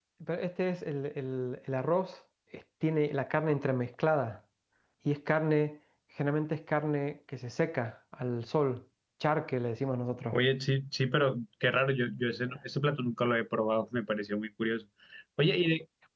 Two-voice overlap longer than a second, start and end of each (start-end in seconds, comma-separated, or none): none